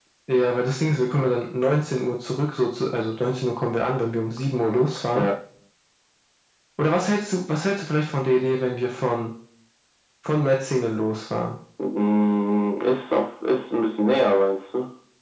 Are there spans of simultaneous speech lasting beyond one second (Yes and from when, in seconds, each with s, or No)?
No